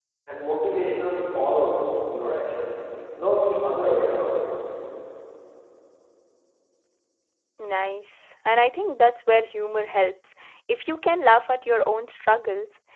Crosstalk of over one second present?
No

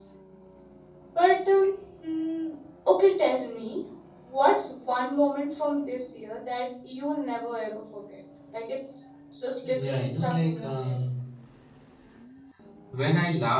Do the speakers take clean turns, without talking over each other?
No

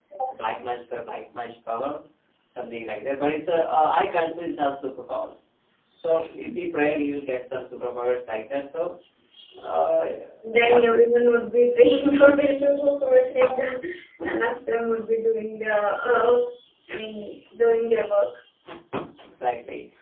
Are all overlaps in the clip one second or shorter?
Yes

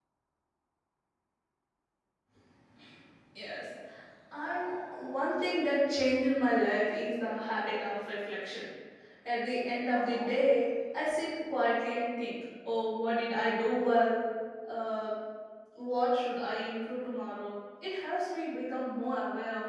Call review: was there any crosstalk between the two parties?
No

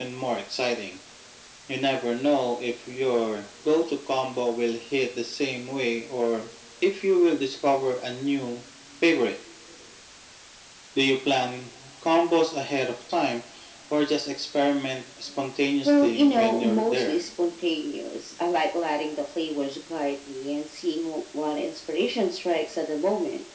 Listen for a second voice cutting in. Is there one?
Yes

